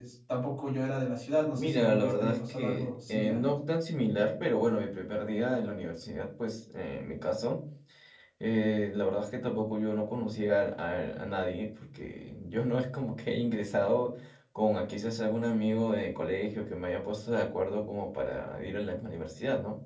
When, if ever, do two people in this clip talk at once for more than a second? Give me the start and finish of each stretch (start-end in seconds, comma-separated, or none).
1.6-3.4